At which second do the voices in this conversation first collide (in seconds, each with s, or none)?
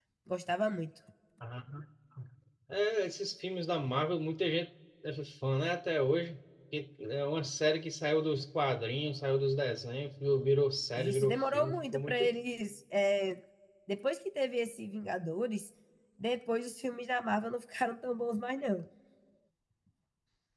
10.9 s